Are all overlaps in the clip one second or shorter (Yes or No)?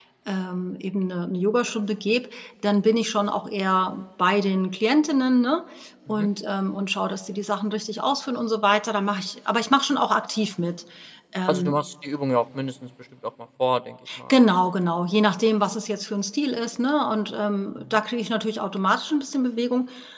Yes